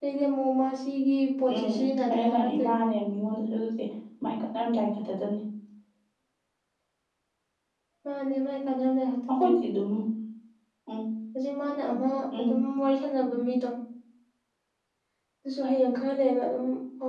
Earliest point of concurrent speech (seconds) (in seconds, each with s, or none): 1.5 s